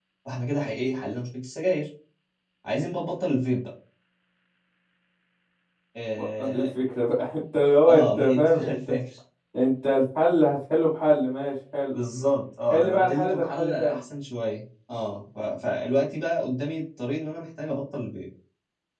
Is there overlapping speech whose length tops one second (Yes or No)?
Yes